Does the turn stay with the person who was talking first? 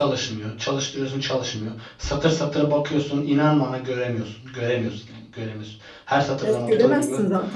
No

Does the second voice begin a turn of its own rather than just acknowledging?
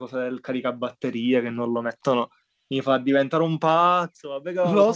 No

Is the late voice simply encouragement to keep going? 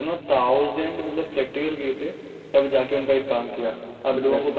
Yes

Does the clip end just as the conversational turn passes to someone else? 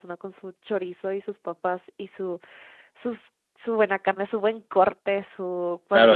Yes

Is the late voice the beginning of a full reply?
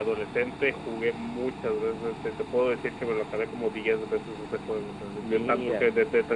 No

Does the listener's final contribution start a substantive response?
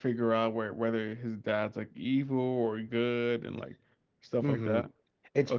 Yes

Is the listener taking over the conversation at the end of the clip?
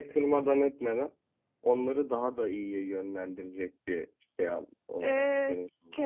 Yes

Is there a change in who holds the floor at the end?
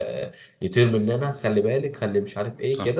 No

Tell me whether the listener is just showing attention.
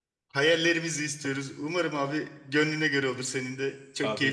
No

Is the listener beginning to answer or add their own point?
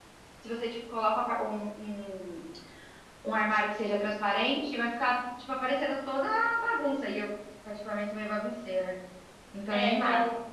Yes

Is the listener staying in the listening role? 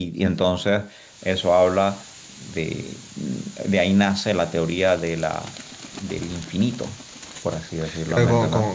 No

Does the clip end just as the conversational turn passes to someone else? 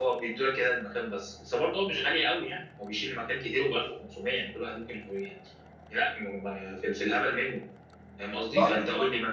No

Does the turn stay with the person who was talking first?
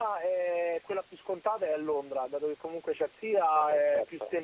Yes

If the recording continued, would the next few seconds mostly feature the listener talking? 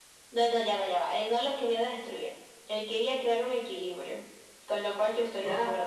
Yes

